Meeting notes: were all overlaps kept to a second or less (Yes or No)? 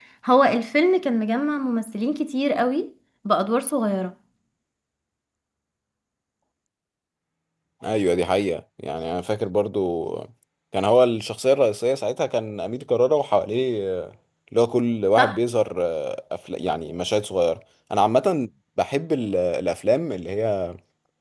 Yes